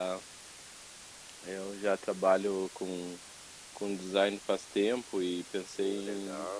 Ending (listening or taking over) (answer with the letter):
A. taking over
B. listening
B